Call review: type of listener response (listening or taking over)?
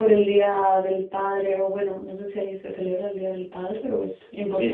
taking over